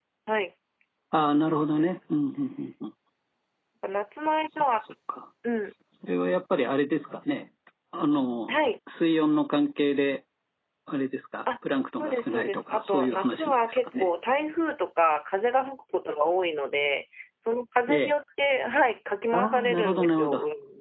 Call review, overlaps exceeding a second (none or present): present